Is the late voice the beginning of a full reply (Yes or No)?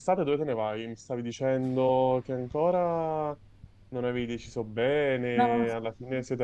No